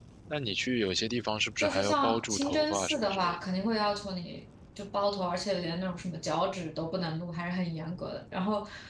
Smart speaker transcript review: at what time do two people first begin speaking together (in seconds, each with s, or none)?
1.6 s